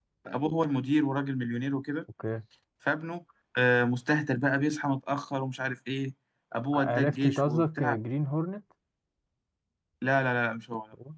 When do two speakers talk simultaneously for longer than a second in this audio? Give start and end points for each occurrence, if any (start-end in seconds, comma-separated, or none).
6.7-8.0